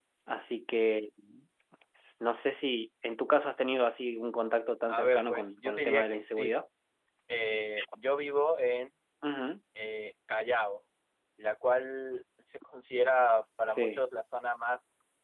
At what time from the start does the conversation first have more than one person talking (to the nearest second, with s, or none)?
5 s